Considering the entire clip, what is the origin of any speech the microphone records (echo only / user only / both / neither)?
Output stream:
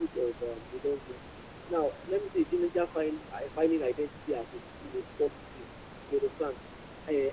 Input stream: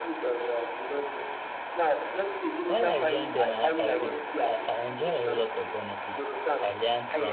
both